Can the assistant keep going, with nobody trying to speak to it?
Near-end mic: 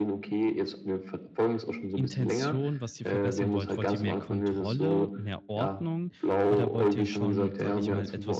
No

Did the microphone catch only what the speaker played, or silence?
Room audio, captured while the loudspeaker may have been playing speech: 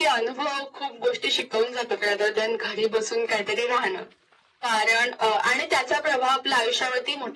Yes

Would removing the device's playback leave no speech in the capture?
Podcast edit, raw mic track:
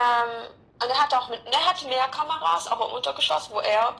Yes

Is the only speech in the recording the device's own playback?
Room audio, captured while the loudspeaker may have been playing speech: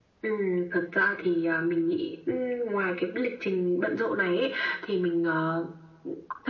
Yes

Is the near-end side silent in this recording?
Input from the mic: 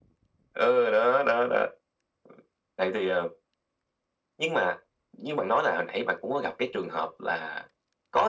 Yes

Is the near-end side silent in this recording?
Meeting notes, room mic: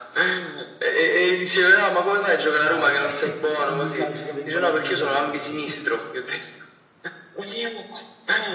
No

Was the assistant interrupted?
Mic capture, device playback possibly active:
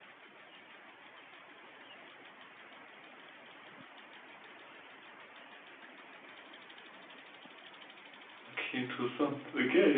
Yes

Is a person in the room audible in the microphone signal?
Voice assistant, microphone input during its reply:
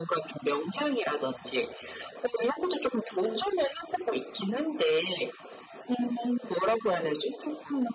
No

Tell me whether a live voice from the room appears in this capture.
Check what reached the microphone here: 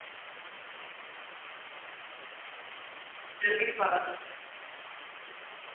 Yes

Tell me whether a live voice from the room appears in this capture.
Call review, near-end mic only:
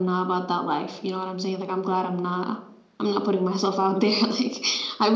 No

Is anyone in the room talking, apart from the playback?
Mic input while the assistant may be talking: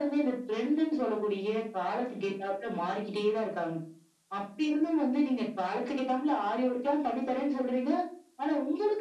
No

